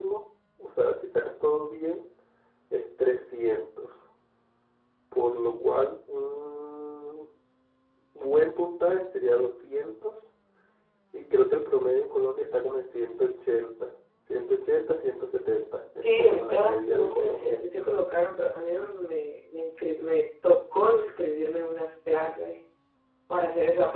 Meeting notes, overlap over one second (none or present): present